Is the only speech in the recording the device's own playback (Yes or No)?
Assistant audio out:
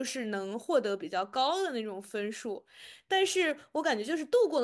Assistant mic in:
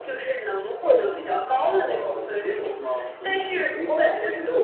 No